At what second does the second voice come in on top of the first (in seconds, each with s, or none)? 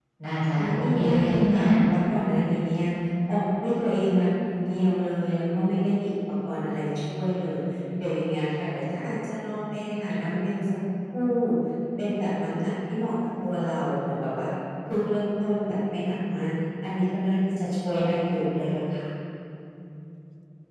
0.5 s